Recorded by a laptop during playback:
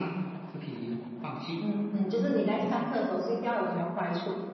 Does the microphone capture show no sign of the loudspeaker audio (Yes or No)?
No